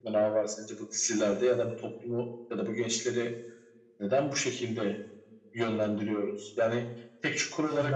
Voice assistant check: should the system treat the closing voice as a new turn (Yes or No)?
No